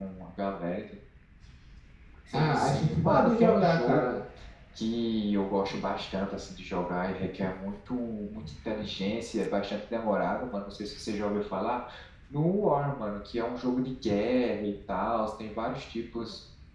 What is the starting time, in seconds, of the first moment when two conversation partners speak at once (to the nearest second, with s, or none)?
2 s